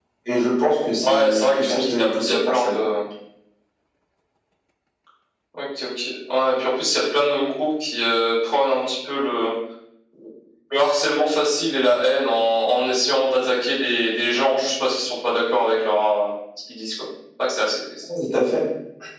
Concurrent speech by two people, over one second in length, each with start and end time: 1.0-2.9

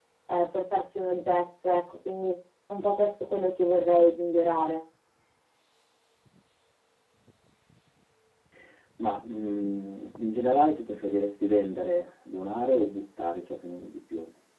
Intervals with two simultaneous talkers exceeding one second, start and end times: none

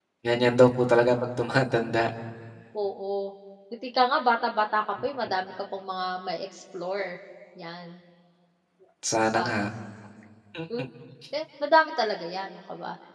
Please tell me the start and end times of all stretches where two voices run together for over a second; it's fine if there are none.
none

